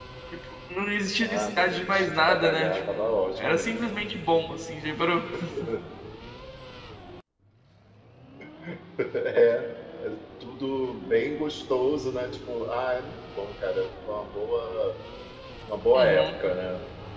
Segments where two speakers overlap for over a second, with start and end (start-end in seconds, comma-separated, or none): 1.2-3.8